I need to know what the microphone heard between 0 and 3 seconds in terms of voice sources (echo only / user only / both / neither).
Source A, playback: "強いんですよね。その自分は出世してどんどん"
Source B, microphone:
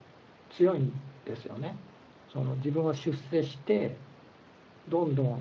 echo only